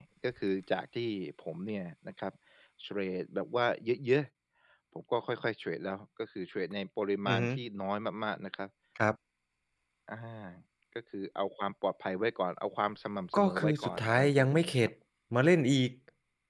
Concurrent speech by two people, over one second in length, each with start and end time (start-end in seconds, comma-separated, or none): 13.3-14.8